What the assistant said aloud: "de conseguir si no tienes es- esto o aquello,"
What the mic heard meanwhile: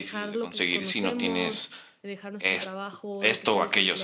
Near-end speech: present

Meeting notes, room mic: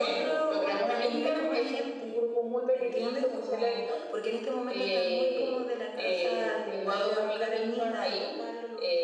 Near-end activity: none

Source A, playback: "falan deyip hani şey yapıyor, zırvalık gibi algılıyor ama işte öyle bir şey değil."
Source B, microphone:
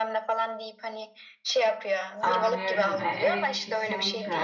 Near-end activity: present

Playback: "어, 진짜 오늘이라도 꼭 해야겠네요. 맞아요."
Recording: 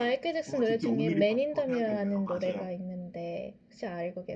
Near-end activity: present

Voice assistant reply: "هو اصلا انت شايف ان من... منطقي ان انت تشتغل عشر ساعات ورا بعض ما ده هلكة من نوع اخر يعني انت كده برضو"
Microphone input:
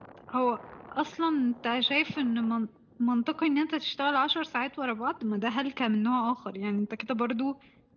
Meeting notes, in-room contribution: none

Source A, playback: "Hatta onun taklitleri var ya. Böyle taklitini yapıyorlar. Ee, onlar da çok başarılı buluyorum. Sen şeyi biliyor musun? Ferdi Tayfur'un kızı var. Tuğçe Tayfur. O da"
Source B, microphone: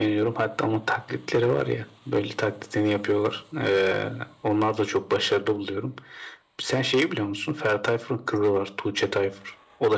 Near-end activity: none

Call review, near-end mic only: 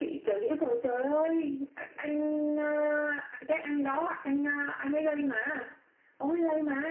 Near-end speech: none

